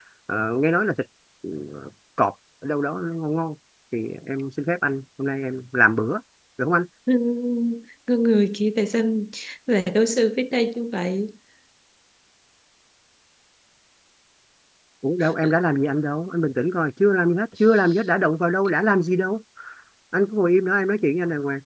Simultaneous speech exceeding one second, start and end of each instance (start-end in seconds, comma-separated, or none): none